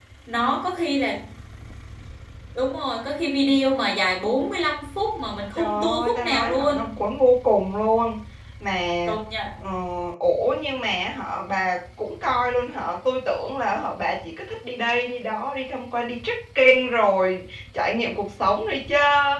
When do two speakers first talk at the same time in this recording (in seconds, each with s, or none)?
5.5 s